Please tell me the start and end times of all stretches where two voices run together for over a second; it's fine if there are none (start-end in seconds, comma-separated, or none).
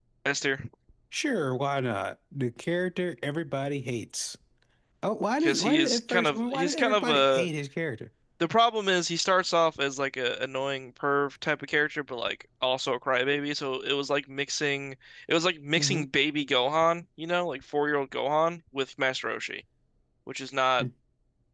5.4-7.5